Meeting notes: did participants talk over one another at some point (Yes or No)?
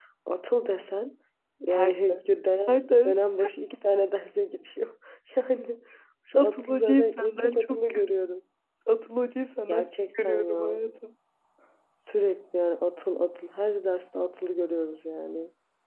Yes